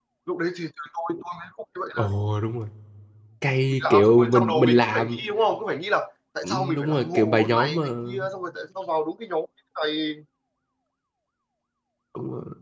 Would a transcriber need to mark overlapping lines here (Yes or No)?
Yes